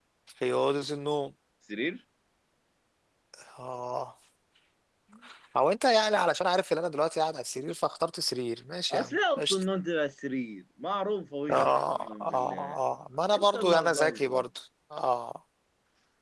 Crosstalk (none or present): present